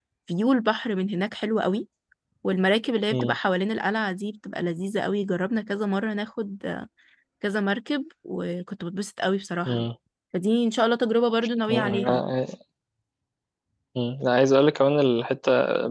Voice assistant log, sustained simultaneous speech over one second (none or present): none